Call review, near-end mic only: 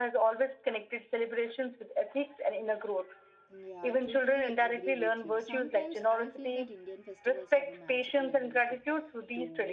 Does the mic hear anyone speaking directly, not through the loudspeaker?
Yes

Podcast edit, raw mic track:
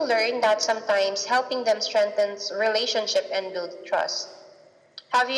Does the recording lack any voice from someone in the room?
Yes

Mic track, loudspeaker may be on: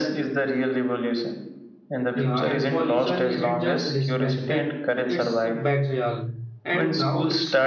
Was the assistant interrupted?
Yes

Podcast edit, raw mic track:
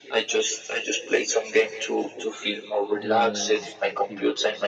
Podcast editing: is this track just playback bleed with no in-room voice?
No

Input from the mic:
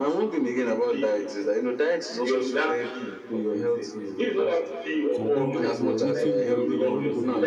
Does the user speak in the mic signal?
Yes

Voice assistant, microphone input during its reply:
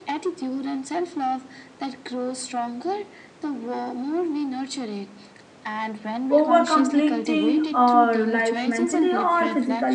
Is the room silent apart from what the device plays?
No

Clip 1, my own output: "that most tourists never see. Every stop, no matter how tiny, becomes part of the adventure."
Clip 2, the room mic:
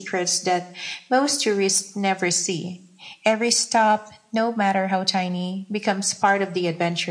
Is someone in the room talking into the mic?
No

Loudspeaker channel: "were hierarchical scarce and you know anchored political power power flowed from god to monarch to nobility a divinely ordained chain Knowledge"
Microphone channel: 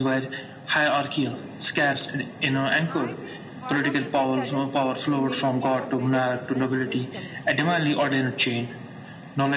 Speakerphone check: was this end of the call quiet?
No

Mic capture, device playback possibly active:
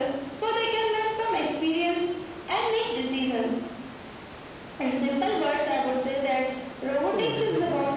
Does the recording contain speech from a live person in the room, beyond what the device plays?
Yes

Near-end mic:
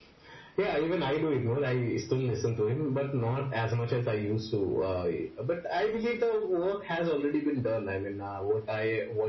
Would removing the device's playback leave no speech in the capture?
Yes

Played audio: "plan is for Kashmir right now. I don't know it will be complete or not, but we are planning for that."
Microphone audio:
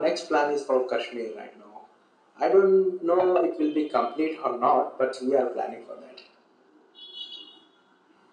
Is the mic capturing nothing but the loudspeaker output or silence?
Yes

